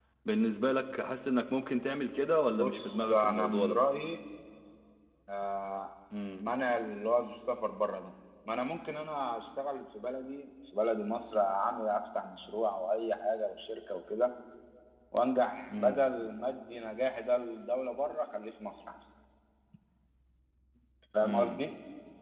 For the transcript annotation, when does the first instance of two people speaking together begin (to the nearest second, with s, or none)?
3 s